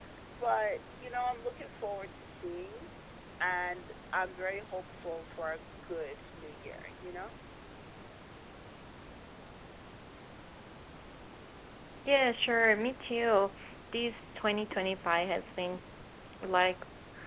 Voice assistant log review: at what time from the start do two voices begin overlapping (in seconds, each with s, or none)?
none